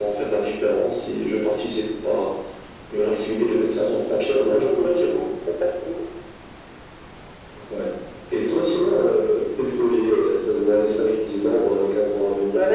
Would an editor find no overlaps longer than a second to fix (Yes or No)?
No